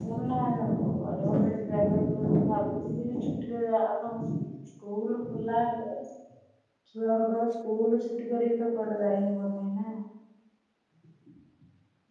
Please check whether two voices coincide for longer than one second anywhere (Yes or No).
No